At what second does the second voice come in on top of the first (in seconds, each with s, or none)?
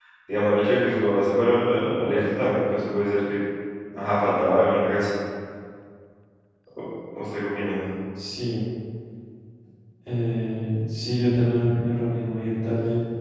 none